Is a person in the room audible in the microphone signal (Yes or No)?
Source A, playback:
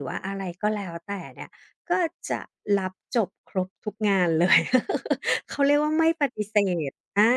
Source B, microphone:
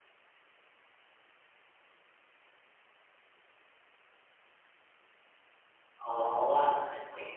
Yes